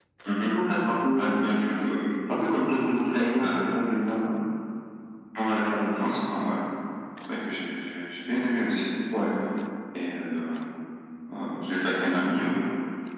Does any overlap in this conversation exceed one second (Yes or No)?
No